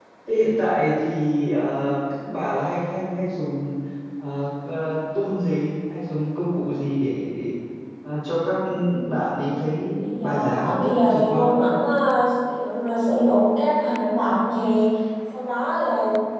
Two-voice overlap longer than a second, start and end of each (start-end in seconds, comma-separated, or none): 10.2-11.7